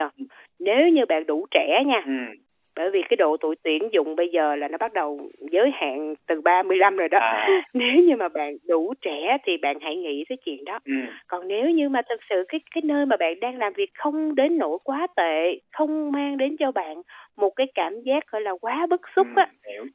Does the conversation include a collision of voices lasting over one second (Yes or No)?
No